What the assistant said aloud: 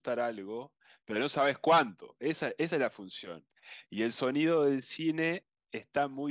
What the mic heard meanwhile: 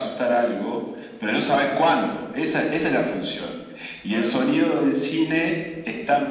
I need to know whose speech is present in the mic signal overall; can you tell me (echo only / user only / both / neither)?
both